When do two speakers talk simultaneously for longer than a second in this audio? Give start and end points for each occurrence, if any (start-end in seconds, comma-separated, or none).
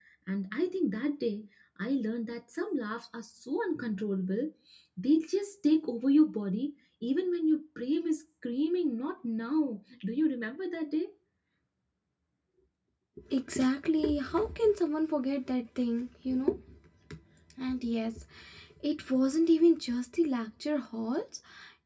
none